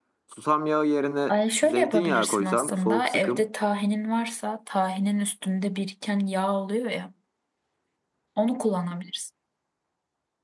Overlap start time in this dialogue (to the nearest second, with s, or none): 1 s